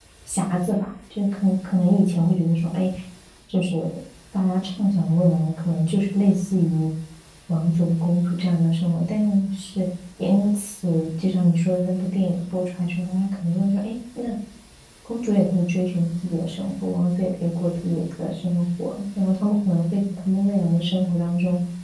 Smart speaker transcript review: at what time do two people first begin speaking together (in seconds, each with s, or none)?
none